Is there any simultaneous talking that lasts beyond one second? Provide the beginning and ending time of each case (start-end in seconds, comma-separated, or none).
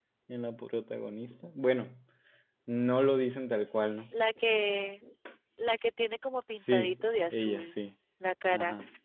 6.6-7.8